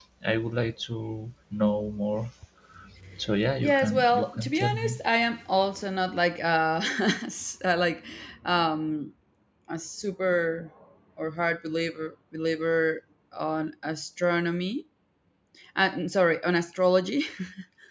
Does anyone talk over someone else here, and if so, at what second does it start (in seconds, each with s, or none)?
3.6 s